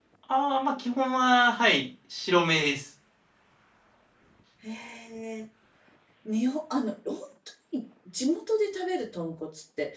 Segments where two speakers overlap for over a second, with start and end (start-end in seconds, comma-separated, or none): none